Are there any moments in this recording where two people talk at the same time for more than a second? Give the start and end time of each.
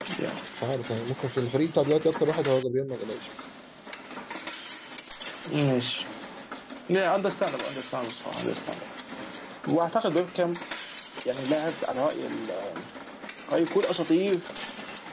none

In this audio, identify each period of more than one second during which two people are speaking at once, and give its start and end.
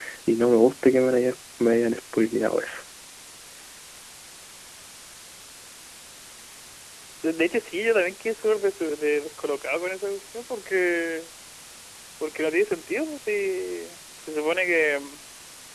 none

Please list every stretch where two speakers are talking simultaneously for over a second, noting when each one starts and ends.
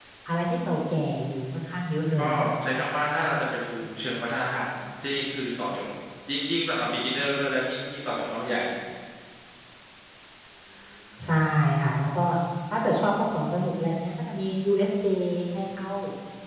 none

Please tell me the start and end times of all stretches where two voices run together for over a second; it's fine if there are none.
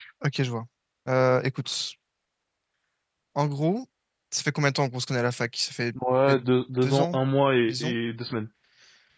none

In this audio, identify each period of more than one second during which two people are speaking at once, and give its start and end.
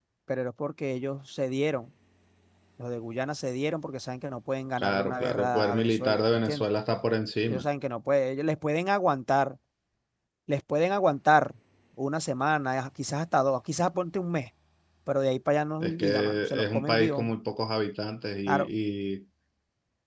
4.8-6.7, 15.8-17.3

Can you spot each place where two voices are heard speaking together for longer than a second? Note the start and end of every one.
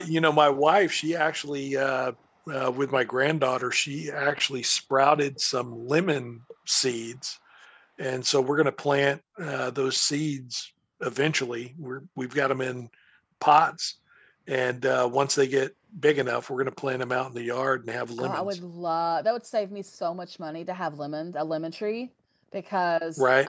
none

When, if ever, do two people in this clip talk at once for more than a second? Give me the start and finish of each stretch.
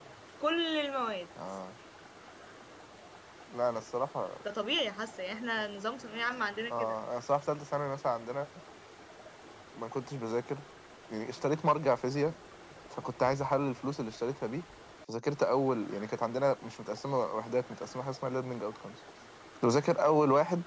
none

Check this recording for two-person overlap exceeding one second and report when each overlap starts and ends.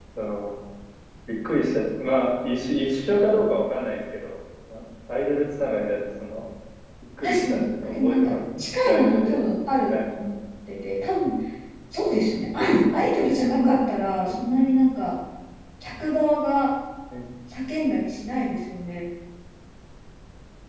7.2-9.4

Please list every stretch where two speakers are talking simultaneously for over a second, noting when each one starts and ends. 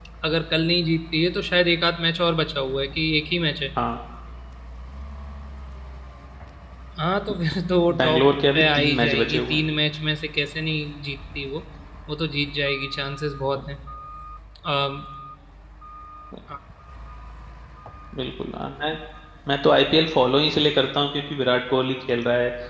8.0-9.6

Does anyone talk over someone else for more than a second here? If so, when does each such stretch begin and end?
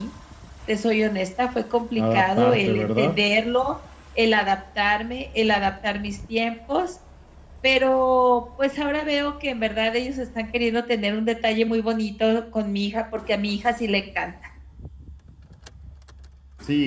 2.0-3.2

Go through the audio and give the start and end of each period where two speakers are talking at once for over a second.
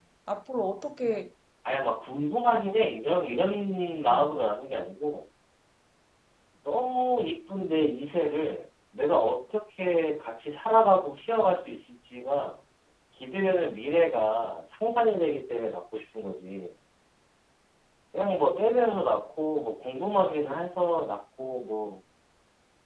none

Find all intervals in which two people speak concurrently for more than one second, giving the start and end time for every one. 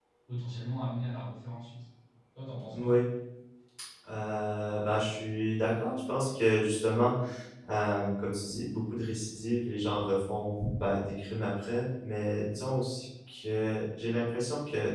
none

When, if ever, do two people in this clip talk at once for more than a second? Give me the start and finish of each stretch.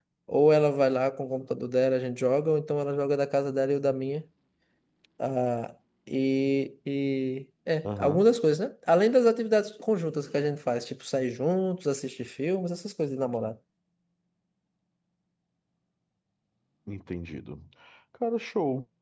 none

